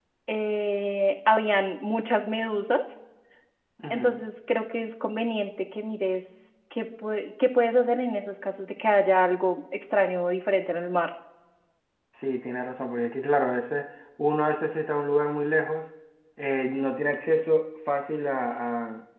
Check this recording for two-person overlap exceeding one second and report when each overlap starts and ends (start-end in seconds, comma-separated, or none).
none